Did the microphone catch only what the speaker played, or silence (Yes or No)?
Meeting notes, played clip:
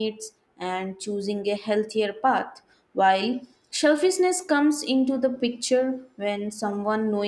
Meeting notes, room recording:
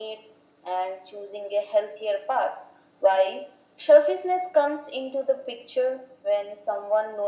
Yes